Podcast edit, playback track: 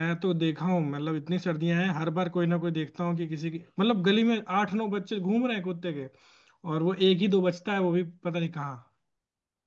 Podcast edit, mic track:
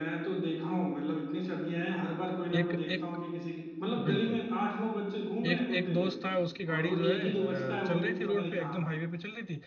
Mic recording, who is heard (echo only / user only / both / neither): both